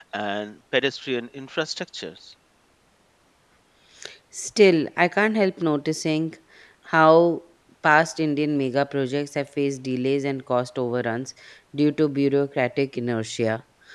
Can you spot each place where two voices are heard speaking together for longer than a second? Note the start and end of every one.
none

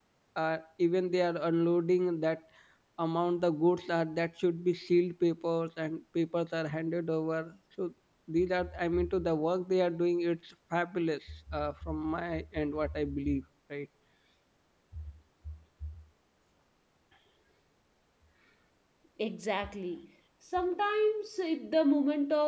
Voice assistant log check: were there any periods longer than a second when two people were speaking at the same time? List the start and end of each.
none

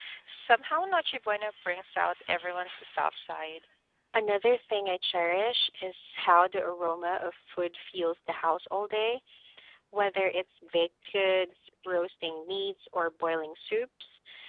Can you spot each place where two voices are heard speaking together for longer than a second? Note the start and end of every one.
none

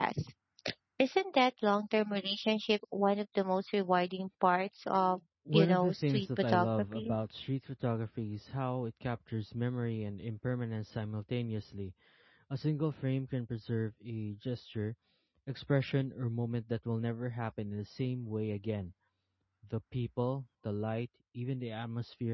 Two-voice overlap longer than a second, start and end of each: 5.5-7.1

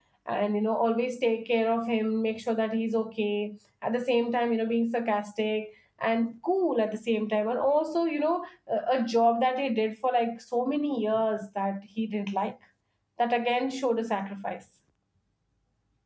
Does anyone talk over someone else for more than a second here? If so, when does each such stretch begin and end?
none

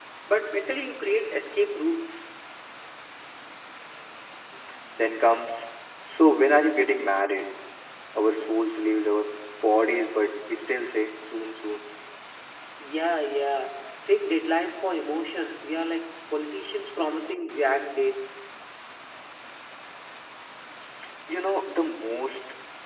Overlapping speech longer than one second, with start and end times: none

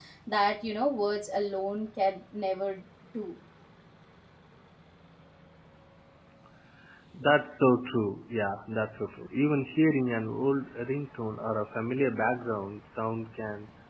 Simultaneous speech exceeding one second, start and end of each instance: none

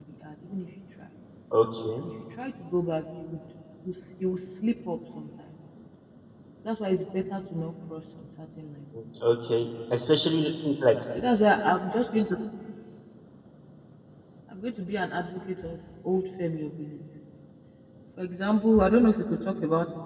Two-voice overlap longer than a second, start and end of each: none

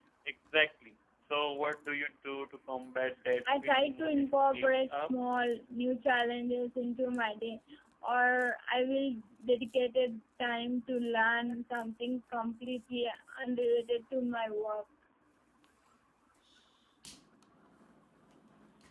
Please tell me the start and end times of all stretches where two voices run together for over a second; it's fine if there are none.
3.5-5.1

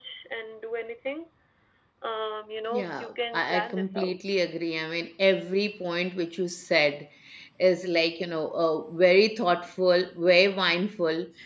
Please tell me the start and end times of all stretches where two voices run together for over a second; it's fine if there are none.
2.7-4.2

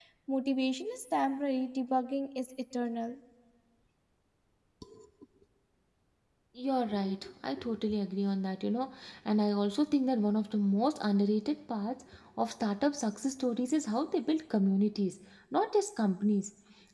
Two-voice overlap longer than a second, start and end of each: none

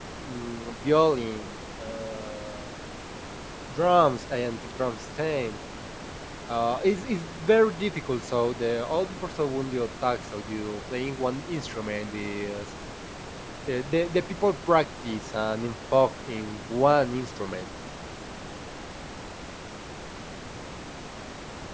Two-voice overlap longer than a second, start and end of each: none

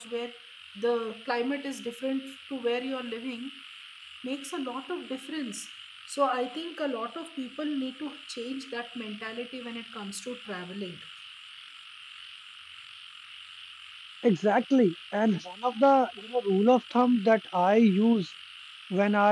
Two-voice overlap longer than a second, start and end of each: none

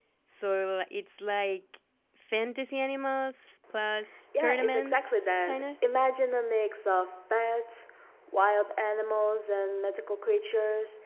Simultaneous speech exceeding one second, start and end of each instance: 4.4-5.6

